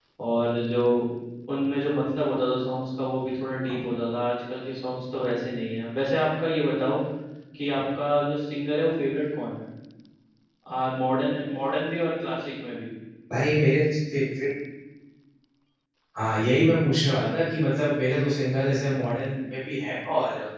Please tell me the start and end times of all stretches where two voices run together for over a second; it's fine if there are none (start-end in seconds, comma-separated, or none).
none